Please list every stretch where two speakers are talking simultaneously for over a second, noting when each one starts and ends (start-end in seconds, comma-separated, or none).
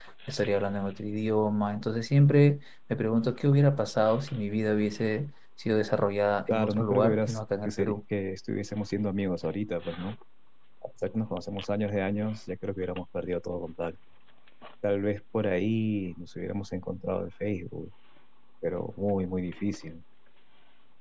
6.5-8.0